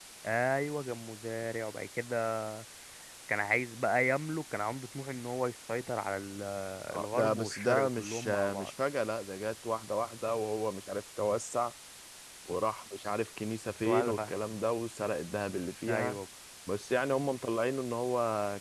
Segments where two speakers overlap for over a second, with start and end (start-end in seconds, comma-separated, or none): 7.0-8.7